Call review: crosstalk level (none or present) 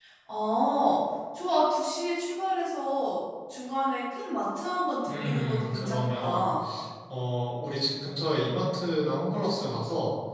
present